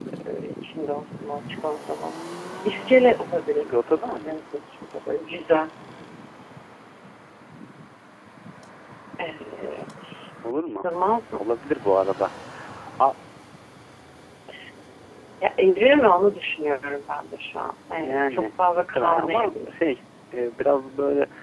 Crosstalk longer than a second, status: present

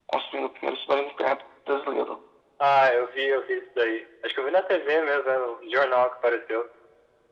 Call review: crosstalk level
none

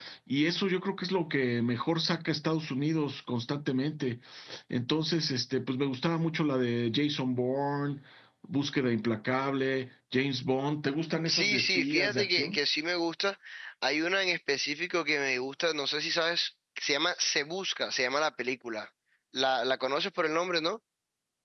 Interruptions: present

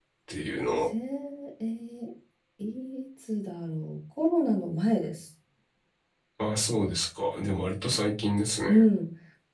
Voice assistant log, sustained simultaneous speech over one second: none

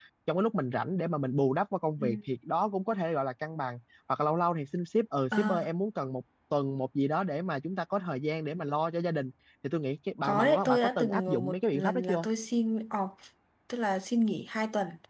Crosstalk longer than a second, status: present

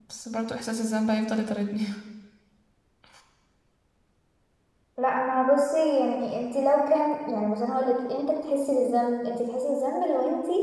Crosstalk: none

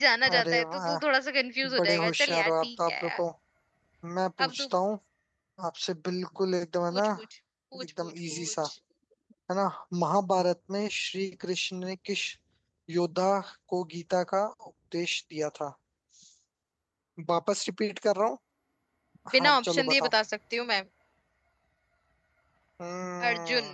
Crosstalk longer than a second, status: present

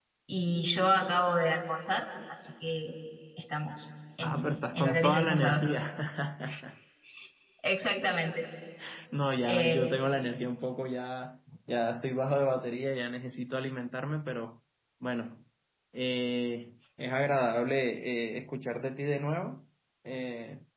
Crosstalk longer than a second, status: present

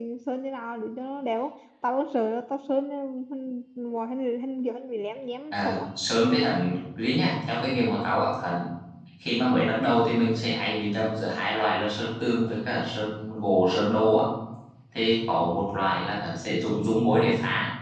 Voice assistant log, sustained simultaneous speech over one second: none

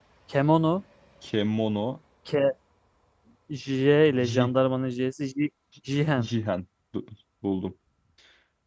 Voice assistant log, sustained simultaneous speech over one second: none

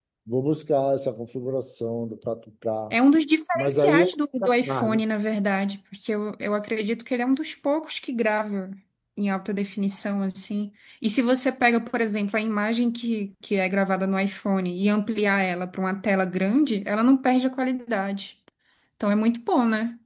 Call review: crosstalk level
present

